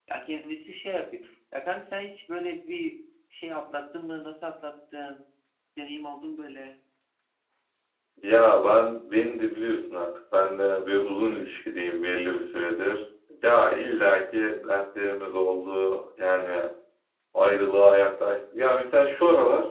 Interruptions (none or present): none